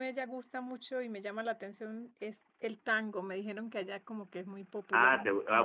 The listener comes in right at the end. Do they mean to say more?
Yes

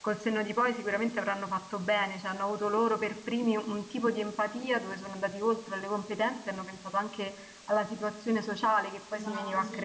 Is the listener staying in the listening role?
No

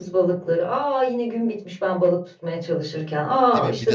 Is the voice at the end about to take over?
Yes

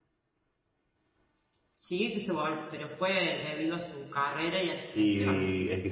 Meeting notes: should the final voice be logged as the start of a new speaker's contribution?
Yes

